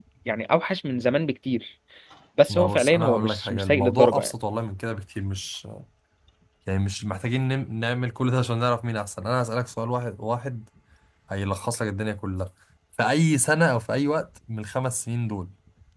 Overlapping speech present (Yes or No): Yes